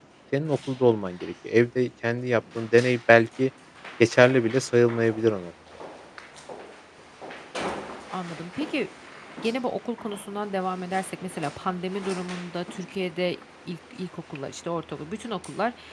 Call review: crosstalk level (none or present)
none